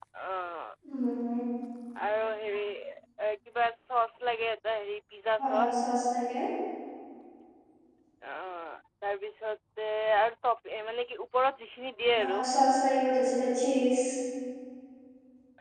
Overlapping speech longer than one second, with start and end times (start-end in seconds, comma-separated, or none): none